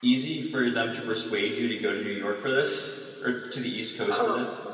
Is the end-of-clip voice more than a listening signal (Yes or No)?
Yes